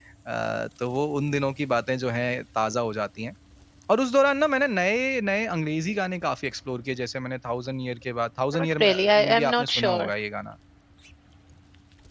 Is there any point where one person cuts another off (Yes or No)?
Yes